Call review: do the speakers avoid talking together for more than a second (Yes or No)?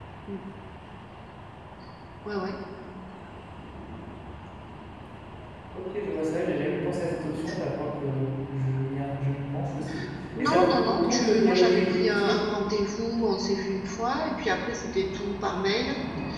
No